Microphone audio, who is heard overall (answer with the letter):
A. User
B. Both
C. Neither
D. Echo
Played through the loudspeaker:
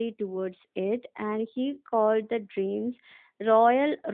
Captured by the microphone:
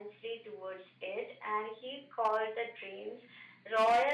D